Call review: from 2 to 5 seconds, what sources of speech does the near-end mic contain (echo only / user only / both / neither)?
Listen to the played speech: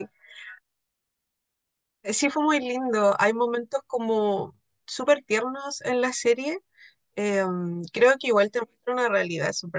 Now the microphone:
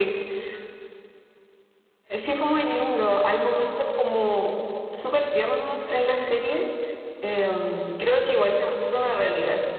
echo only